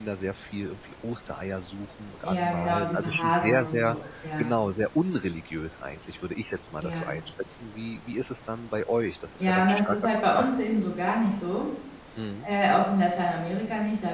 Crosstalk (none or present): present